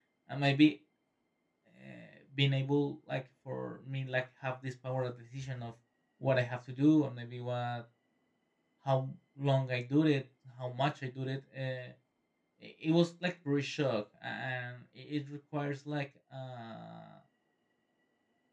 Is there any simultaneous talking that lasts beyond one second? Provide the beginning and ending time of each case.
none

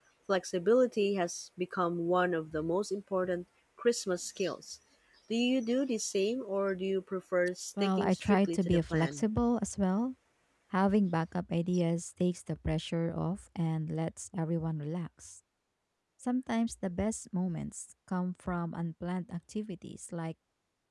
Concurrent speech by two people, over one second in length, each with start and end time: 7.8-9.2

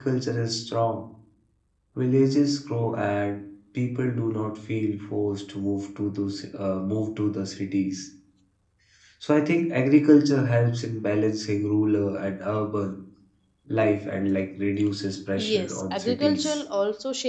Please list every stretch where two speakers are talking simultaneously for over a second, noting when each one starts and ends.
15.4-16.6

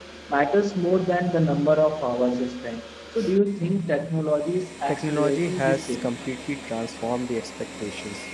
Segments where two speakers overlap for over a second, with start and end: 4.9-6.1

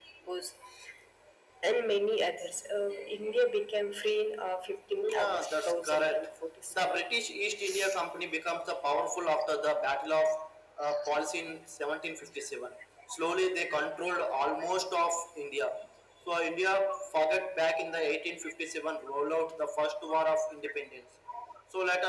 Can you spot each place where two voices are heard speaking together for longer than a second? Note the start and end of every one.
5.0-6.3

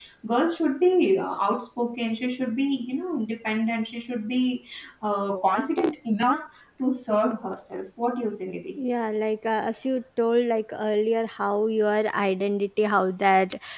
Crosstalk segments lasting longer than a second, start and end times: none

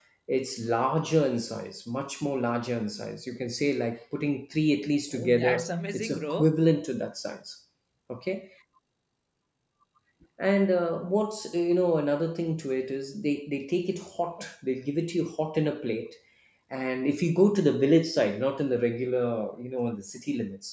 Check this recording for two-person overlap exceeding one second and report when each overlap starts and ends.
5.1-6.6

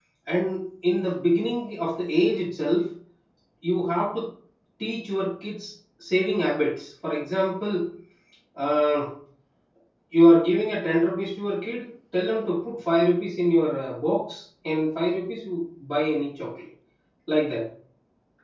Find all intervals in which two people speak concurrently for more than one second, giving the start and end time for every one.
none

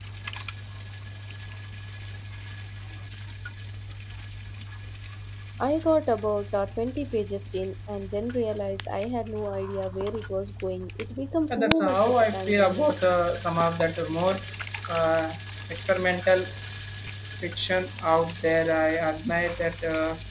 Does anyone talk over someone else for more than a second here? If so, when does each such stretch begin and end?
11.5-12.9

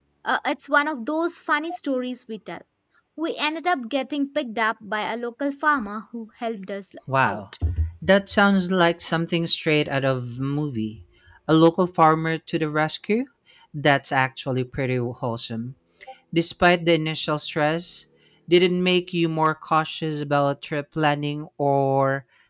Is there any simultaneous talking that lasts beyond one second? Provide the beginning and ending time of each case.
none

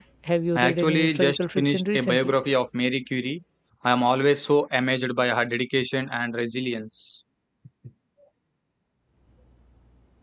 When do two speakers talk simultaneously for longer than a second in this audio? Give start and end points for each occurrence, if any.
0.6-2.3

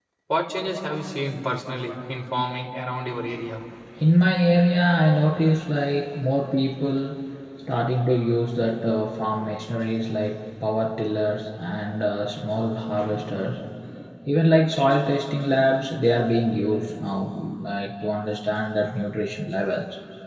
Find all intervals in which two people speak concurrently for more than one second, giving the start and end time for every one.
none

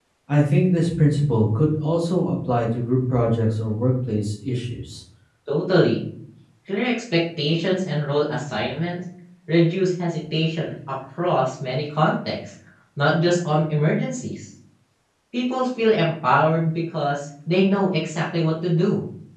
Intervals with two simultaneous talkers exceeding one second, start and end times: none

